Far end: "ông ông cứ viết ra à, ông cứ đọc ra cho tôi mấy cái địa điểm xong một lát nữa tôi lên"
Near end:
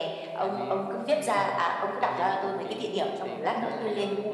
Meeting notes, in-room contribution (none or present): present